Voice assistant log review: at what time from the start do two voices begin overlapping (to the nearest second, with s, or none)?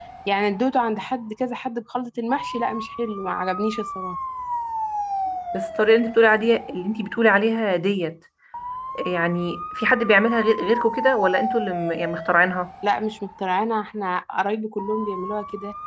none